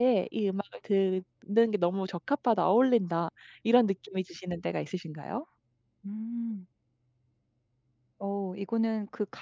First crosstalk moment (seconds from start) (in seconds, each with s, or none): none